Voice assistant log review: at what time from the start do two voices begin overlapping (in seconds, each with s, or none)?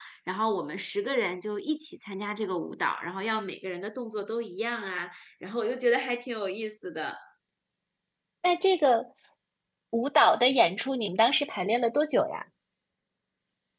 none